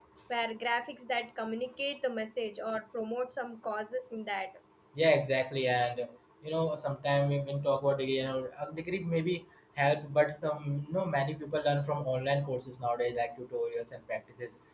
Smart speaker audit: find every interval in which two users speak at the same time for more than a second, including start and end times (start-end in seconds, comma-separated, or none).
none